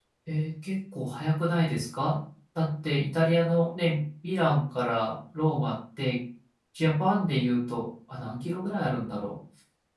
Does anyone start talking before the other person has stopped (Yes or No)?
No